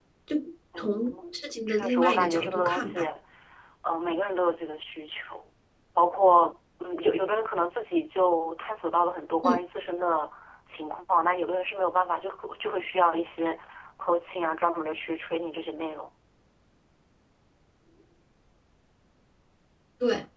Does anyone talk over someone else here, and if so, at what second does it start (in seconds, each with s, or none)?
0.8 s